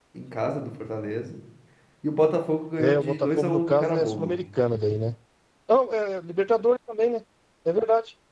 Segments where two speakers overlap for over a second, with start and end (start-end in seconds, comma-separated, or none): 2.8-4.3